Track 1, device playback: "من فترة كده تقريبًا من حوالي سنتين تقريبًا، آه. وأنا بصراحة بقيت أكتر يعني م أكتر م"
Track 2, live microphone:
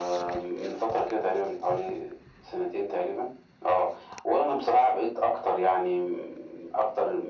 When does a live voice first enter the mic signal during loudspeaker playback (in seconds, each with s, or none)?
none